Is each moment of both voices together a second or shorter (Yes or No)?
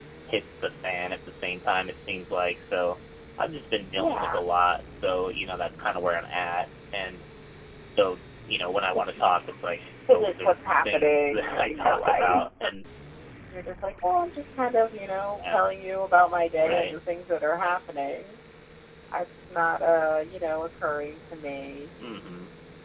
No